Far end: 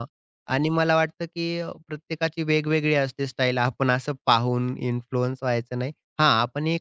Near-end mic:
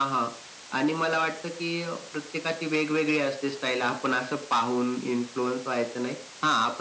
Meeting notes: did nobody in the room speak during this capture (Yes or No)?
Yes